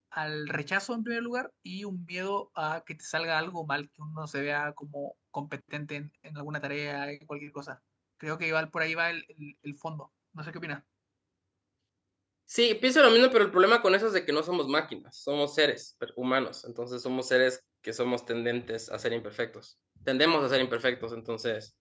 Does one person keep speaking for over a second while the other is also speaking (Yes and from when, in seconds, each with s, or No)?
No